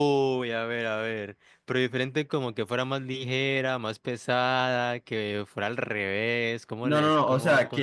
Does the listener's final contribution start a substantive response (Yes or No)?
Yes